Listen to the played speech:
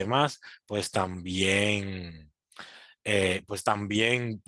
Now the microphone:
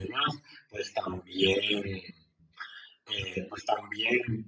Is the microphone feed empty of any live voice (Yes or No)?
Yes